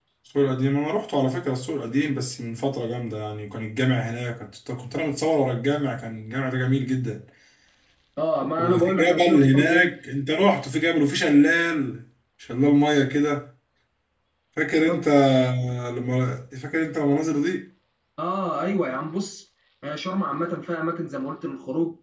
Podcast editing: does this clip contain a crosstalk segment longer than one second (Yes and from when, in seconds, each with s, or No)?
Yes, from 8.6 s